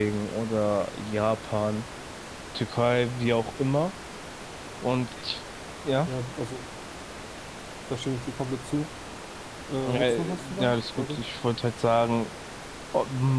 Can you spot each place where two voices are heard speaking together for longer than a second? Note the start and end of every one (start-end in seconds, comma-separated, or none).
9.8-11.2